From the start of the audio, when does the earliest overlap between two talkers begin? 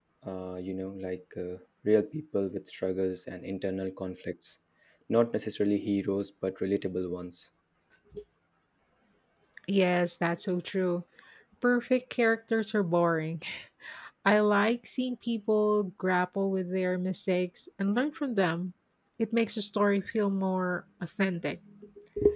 none

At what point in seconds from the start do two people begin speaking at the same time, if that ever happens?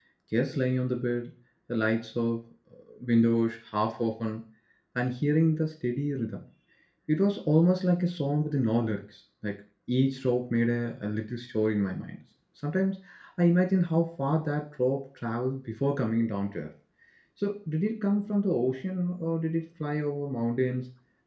none

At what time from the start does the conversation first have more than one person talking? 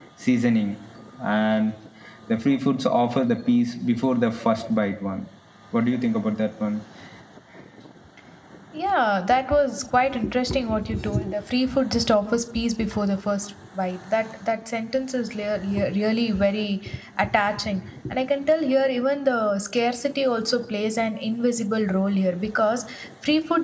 none

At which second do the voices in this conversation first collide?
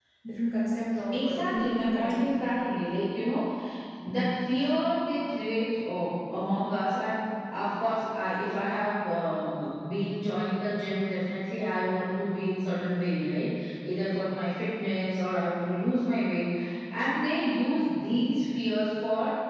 1 s

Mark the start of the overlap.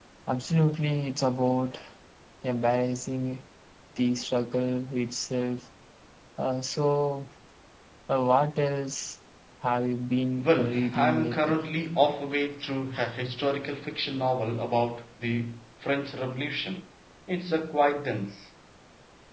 10 s

